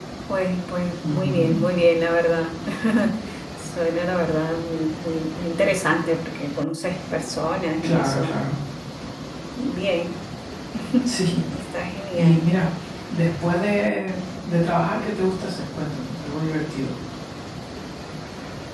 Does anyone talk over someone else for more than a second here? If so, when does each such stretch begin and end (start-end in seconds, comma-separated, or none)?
none